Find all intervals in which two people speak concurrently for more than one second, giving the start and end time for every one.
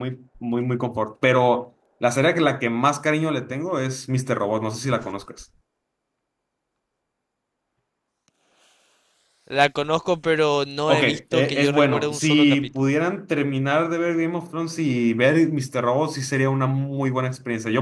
10.9-12.9

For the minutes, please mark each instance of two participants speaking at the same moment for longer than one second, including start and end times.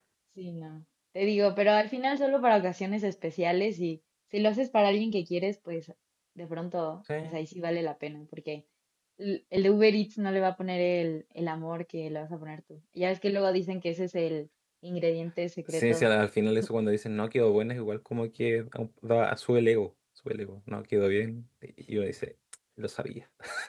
none

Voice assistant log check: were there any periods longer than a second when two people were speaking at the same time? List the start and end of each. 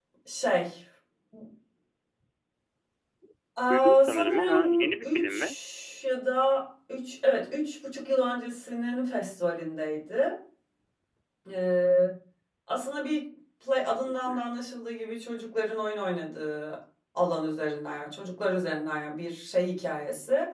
3.7-5.3

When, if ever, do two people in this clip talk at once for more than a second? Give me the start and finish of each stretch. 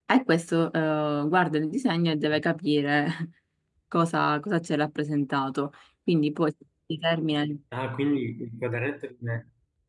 none

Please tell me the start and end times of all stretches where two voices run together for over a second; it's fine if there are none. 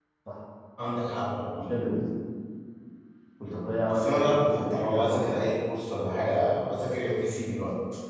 3.9-5.4

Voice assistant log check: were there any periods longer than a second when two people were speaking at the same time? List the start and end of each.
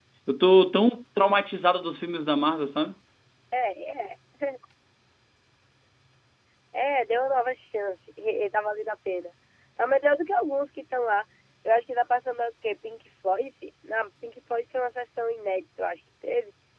none

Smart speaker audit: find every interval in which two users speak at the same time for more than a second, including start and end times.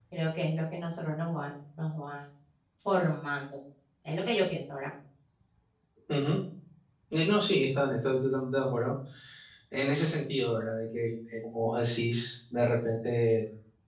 none

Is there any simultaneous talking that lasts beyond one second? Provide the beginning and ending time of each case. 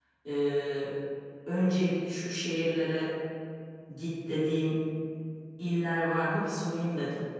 none

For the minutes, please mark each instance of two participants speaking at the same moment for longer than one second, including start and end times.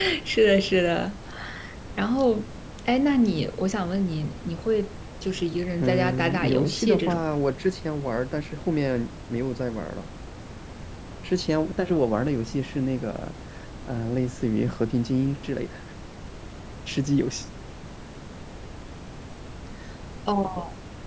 5.8-7.2

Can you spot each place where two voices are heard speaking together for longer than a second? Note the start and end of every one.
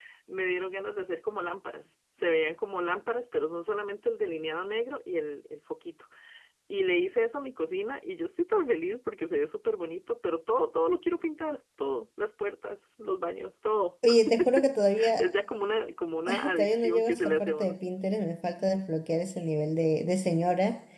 16.5-17.8

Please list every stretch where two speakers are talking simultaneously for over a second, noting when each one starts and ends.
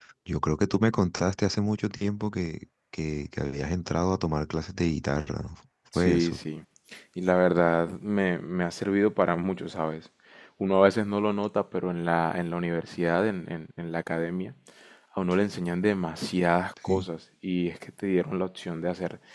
none

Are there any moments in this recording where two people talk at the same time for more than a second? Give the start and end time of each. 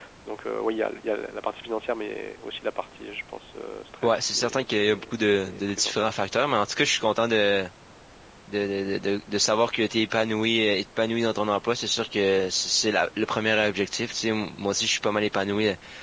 4.0-6.1

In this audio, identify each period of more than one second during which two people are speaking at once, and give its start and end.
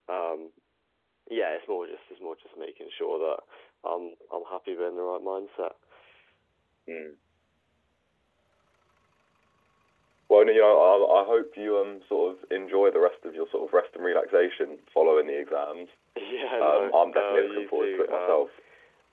16.6-18.5

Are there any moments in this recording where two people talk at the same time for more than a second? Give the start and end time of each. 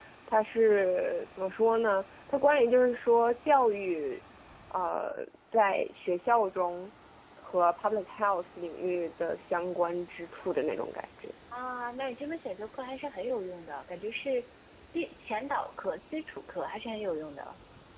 none

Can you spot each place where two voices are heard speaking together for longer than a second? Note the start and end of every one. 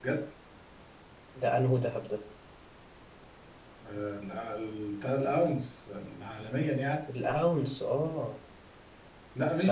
none

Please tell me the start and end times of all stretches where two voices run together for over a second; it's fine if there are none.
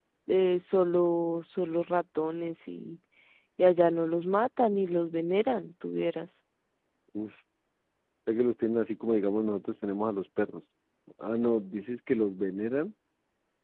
none

